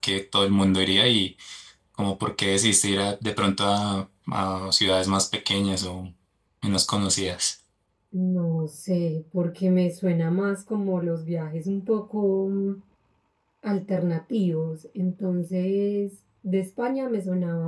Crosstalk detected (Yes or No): No